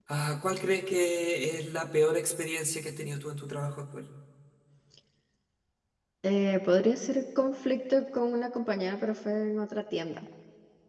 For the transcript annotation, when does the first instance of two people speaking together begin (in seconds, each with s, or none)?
none